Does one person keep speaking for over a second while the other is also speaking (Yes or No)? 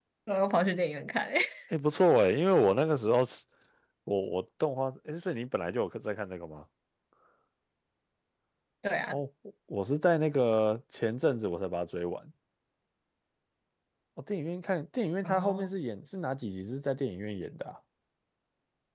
No